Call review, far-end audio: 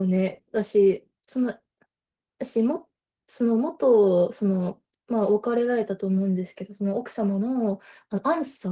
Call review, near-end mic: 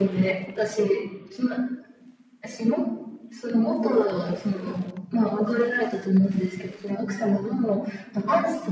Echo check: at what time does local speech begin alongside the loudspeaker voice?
none

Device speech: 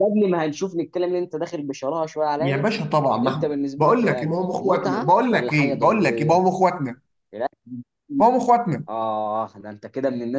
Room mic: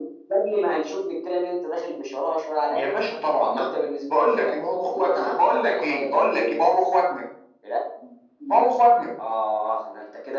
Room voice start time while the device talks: none

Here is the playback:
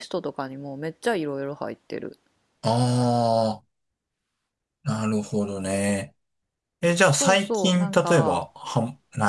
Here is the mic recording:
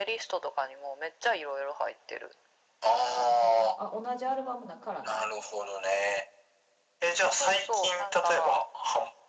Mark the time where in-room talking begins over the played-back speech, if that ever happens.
3.0 s

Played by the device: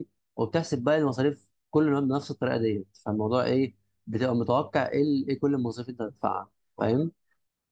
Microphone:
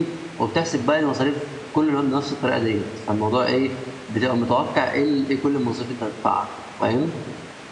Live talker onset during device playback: none

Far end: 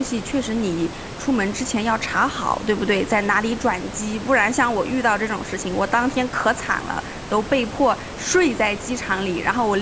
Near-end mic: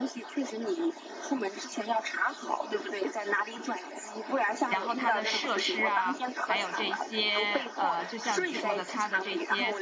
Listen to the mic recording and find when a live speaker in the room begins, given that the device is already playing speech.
4.7 s

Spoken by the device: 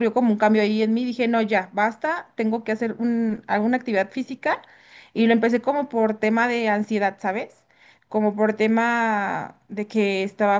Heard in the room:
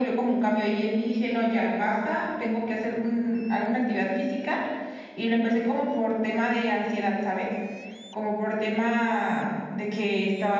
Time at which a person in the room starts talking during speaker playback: none

